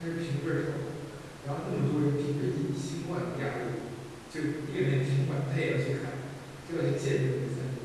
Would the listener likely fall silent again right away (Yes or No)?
Yes